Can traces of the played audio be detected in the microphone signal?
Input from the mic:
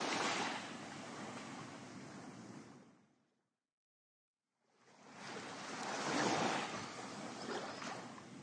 No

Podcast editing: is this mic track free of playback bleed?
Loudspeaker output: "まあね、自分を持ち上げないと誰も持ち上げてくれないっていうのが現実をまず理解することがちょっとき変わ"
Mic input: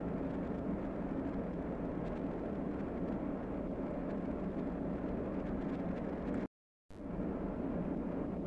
Yes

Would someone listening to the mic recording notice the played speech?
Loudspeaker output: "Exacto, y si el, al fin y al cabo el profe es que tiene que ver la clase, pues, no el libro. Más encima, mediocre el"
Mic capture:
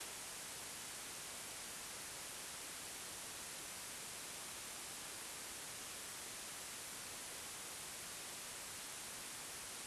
No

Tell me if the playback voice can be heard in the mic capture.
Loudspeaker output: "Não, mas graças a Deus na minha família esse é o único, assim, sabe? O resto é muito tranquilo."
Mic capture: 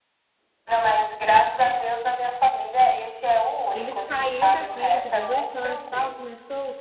Yes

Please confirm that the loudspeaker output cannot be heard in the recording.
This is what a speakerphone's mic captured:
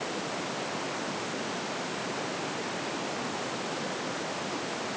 Yes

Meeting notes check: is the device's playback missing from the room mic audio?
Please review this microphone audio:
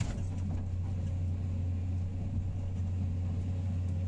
Yes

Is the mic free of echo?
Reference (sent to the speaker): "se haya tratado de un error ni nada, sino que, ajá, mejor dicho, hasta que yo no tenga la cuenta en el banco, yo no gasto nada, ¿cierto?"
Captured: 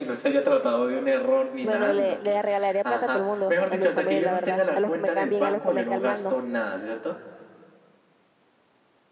No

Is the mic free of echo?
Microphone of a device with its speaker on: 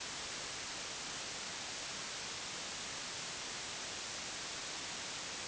Yes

